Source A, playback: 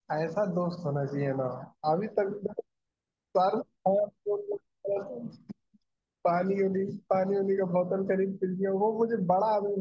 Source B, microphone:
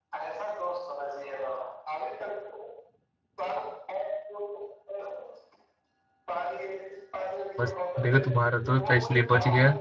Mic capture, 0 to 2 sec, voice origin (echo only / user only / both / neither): echo only